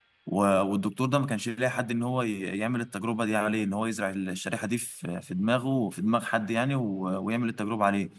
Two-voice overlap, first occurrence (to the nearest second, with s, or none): none